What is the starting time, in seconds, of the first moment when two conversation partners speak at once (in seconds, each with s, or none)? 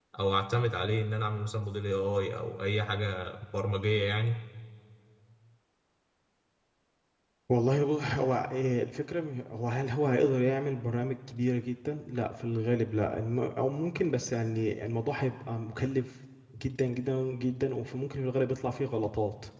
none